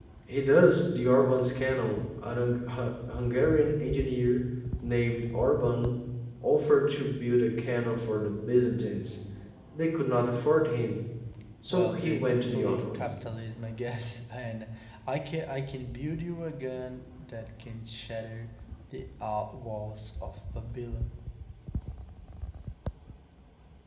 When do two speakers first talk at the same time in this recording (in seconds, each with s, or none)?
11.7 s